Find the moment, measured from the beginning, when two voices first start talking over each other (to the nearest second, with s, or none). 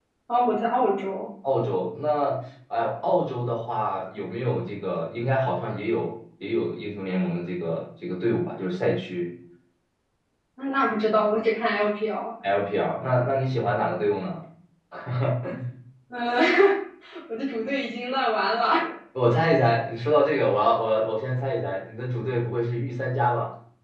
none